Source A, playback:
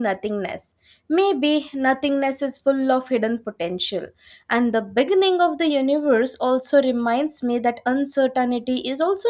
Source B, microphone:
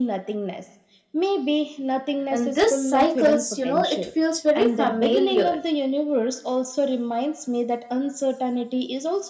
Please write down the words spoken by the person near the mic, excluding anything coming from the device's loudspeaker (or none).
And this cycles, you know, it feels very familiar.